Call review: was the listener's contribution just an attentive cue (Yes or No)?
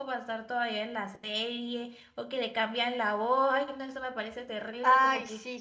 No